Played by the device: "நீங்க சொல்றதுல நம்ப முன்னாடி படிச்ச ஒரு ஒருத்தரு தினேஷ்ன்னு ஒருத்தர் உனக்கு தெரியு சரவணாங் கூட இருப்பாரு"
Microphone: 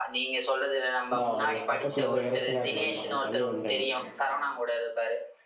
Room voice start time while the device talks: 1.2 s

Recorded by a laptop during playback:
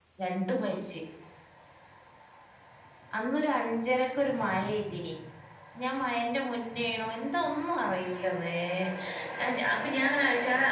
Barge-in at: none

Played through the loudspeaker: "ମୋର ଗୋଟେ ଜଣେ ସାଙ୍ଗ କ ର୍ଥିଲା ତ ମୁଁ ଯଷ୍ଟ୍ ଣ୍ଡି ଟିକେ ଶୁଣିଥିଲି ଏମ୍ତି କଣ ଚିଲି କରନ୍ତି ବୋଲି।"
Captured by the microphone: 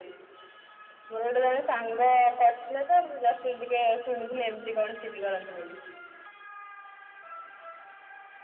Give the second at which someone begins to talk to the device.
none

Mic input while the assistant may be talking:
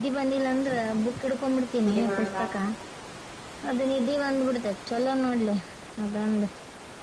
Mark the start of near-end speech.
1.8 s

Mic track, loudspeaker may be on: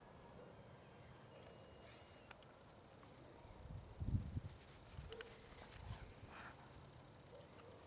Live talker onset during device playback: none

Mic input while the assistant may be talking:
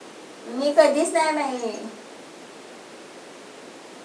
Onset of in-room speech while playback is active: 0.6 s

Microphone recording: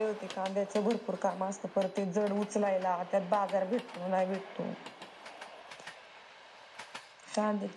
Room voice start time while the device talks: none

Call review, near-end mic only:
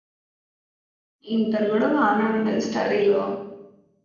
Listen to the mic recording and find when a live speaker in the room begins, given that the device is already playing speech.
1.4 s

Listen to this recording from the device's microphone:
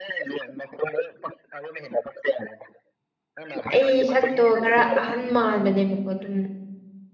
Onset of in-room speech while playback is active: 3.7 s

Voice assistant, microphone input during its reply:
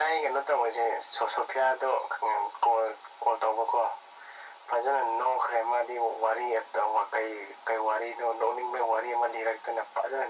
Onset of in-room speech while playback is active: none

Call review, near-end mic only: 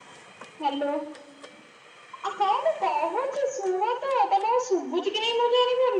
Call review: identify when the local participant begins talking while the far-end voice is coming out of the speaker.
none

